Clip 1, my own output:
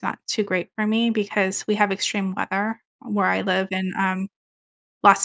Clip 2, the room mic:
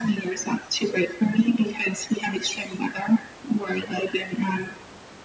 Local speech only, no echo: none

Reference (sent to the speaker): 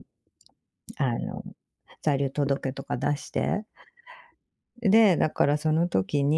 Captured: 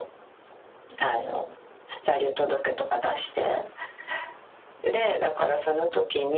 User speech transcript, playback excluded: none

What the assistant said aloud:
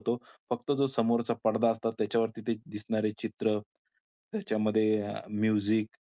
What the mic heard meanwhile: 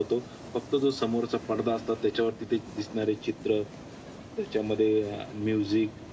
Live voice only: none

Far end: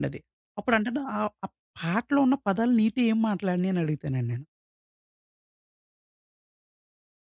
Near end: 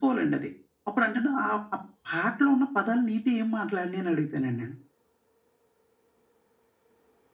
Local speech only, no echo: none

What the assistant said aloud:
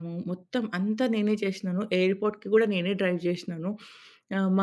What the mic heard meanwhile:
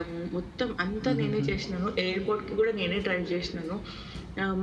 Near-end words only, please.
హుహుహు.

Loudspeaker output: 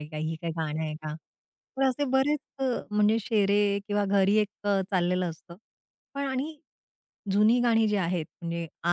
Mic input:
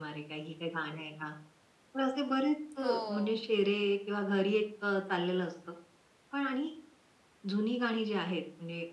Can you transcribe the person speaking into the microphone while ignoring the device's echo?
हो.

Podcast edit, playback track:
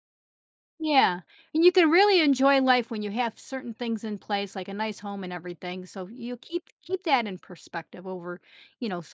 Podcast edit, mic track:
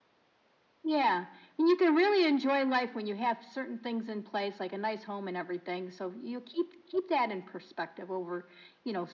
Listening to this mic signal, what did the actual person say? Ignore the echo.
none

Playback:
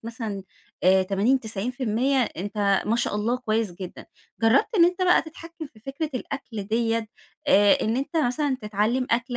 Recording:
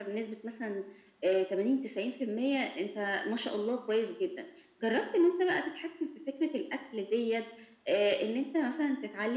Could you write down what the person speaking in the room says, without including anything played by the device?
none

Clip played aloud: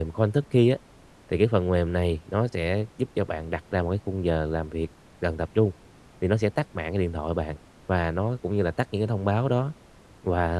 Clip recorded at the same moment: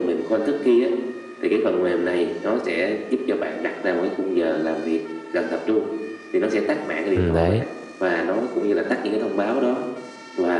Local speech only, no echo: ừm, đấy,

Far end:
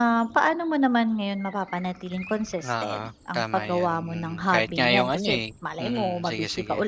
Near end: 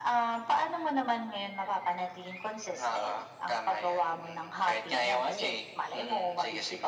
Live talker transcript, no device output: none

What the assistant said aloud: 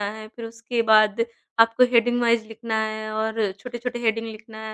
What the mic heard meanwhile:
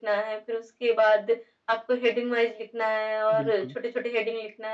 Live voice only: बिल्कुल,

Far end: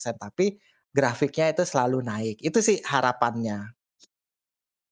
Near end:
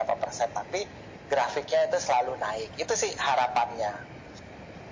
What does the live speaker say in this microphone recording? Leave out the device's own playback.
none

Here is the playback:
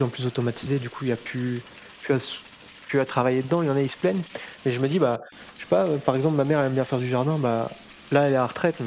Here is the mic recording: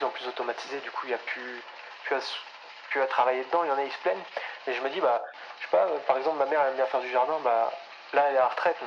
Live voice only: none

